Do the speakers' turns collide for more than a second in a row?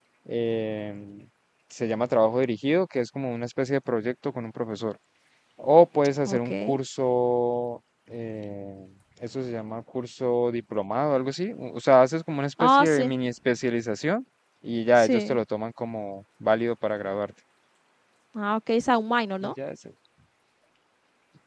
No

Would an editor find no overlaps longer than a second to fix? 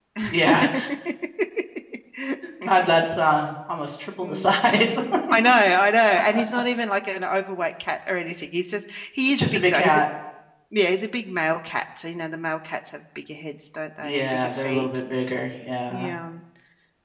No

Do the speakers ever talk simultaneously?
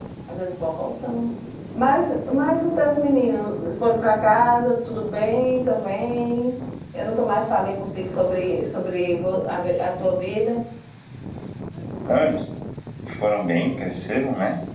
No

